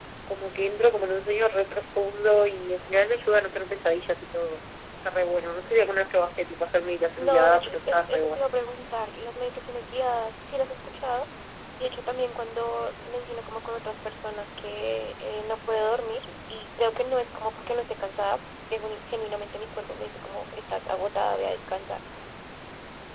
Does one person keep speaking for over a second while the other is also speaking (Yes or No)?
Yes